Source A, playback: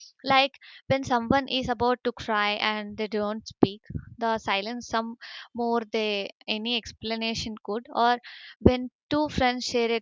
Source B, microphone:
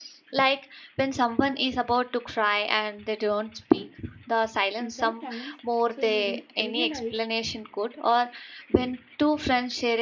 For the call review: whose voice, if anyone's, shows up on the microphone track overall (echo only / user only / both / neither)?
both